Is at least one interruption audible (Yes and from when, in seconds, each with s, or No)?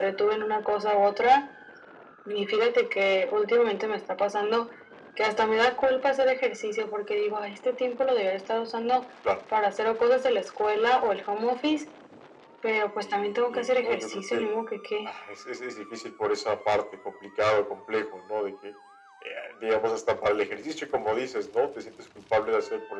Yes, from 13.0 s